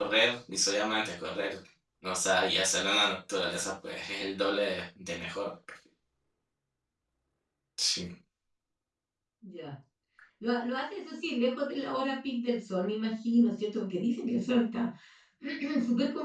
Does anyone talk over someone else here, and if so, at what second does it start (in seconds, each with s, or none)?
none